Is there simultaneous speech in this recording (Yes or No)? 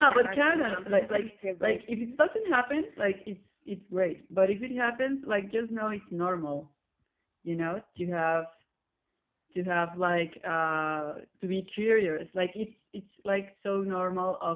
Yes